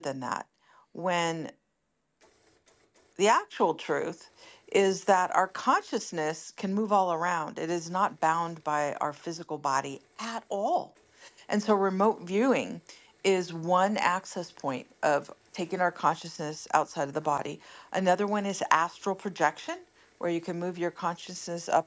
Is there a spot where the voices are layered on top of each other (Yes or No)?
No